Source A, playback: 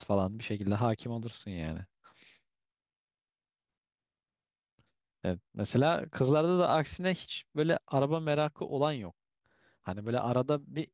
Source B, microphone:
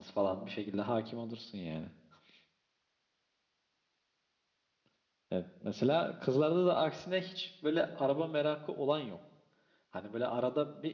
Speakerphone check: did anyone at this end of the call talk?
No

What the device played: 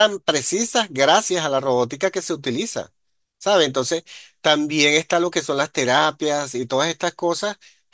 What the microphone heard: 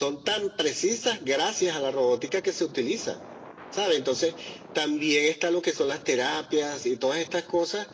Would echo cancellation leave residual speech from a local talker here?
No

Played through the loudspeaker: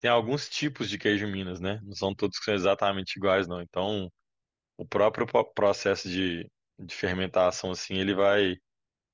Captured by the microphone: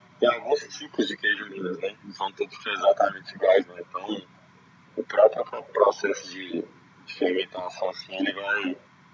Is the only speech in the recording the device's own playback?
Yes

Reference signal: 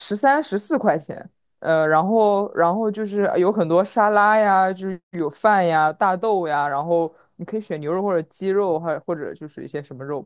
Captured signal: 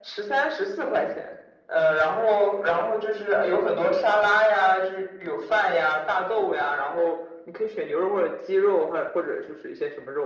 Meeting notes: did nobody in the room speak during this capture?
Yes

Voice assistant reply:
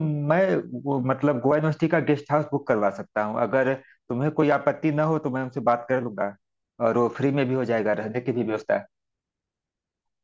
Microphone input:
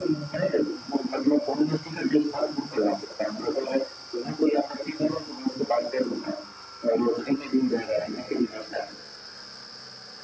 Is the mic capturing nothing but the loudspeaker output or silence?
Yes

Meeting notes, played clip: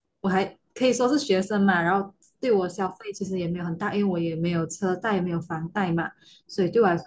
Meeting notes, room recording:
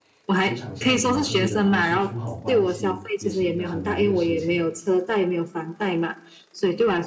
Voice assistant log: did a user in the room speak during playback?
Yes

